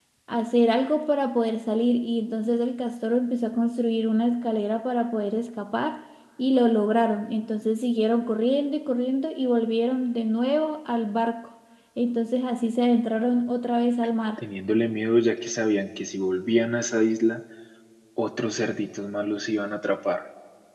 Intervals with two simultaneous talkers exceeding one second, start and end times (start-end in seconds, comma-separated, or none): none